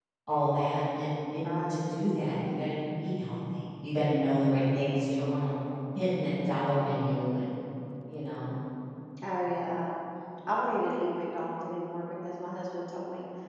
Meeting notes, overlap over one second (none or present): none